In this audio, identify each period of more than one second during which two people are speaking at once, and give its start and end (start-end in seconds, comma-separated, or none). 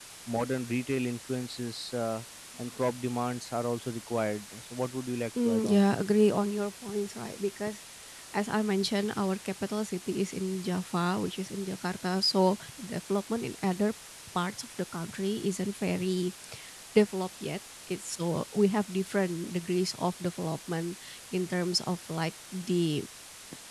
none